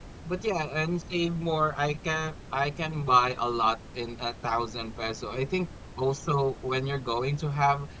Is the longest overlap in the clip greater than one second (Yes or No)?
No